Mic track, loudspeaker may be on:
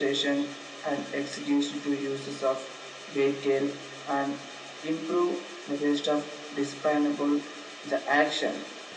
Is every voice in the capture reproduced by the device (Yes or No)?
Yes